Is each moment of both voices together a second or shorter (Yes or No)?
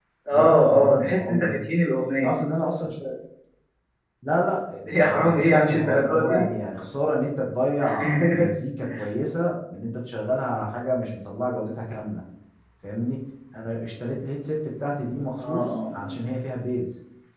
No